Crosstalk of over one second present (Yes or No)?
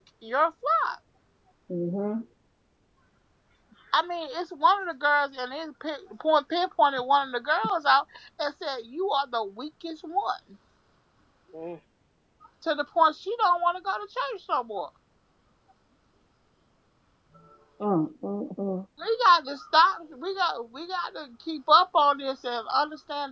No